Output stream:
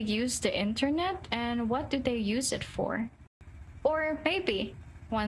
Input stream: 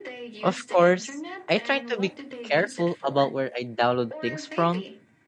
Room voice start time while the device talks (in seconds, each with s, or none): 0.4 s